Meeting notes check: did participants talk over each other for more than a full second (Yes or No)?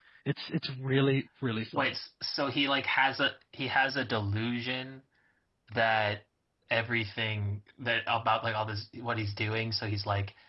No